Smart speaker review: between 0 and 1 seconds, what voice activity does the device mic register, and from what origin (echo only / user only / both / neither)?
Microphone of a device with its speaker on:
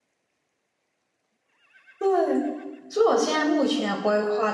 neither